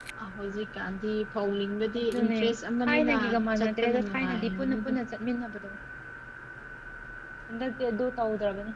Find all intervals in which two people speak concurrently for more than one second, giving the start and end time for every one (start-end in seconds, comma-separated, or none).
3.6-4.9